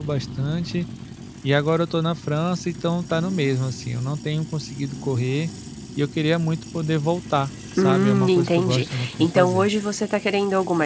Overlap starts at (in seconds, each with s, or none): 7.8 s